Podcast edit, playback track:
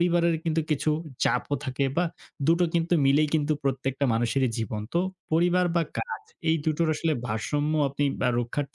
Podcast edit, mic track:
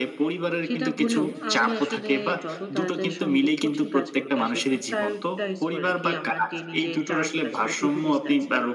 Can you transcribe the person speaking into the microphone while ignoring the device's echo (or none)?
সেটা হলেও আমি আসলে যত তাড়াতাড়ি সম্ভব কঠিন কাজগুলোকে আসলে একটু prioritize করে রাখি। আমার ডেইলি যে টাস্ক আছে বা to do list আছে,